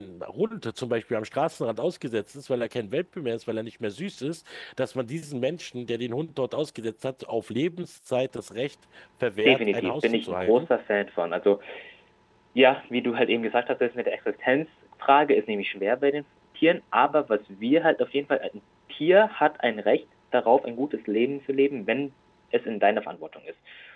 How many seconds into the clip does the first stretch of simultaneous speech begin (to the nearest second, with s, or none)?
9 s